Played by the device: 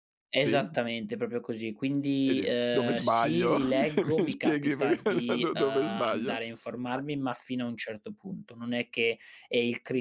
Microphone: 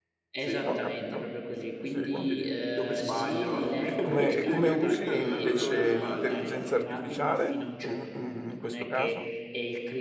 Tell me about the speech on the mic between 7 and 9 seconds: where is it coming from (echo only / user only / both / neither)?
both